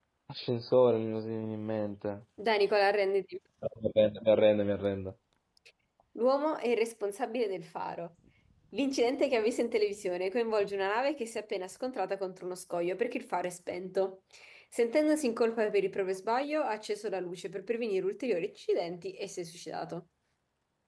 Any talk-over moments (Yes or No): No